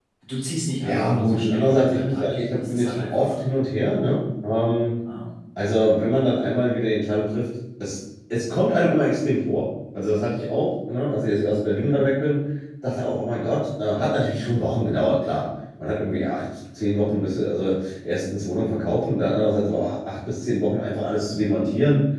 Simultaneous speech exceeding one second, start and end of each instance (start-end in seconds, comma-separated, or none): 0.8-3.4